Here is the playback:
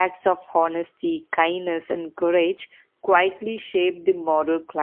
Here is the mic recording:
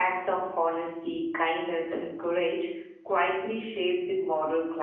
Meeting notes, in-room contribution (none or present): none